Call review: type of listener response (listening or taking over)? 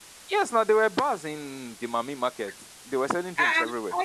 taking over